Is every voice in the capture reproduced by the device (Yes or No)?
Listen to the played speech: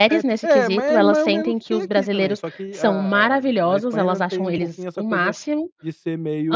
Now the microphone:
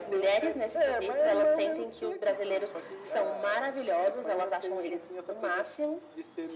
Yes